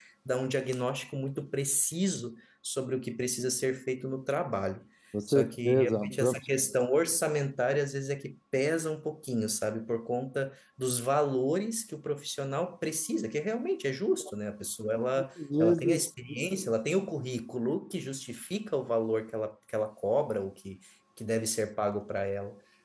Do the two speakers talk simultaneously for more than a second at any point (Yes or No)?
Yes